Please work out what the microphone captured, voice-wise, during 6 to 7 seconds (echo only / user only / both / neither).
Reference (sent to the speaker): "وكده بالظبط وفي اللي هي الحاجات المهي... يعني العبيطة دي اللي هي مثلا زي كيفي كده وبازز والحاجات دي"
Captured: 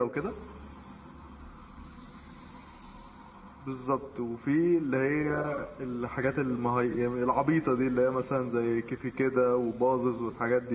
echo only